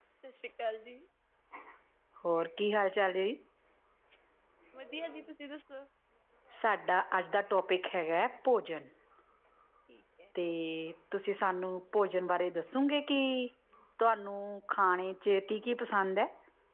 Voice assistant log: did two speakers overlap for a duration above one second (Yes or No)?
No